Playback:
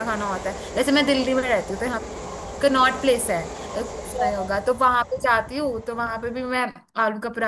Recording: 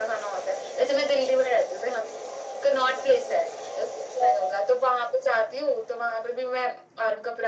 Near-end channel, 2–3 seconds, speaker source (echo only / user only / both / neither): echo only